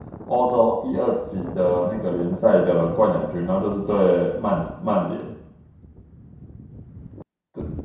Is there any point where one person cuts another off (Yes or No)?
No